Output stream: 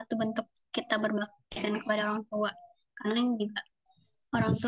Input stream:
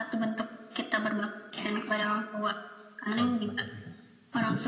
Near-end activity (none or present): present